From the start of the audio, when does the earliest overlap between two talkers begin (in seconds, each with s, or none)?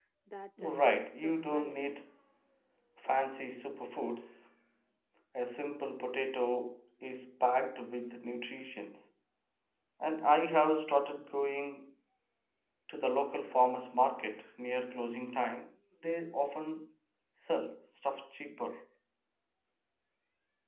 0.6 s